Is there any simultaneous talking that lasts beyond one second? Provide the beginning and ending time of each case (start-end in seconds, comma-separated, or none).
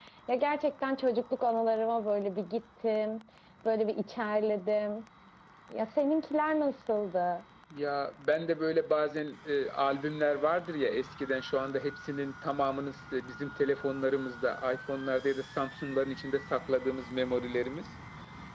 none